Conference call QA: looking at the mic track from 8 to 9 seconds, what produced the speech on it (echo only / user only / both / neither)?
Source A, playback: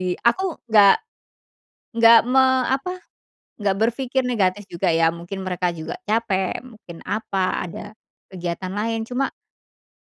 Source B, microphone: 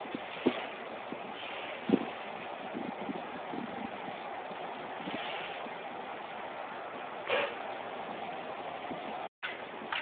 neither